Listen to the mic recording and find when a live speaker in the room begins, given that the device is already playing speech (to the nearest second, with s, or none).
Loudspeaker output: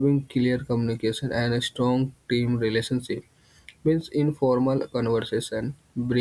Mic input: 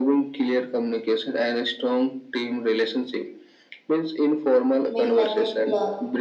5 s